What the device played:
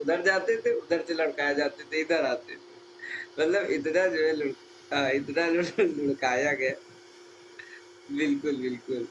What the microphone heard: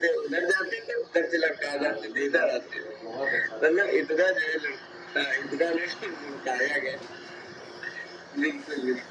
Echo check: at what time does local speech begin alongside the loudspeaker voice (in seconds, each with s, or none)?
1.7 s